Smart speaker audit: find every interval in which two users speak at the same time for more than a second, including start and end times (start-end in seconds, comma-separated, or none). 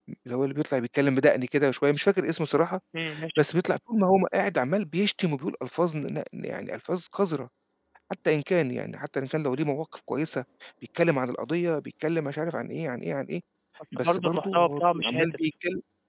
13.9-15.4